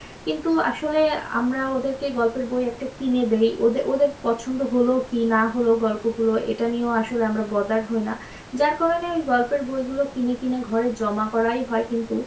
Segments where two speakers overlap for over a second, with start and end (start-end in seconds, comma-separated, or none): none